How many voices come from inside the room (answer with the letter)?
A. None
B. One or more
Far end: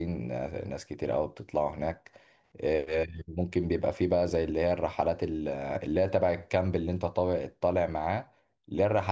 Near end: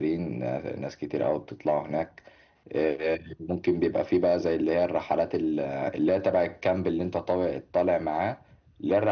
A